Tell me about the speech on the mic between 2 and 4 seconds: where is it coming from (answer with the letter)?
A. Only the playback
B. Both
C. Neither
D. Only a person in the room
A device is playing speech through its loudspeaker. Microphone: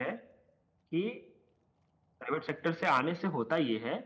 D